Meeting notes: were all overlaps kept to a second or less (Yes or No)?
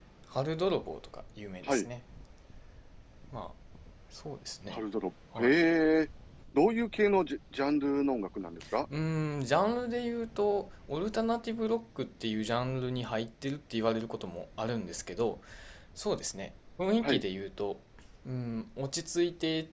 Yes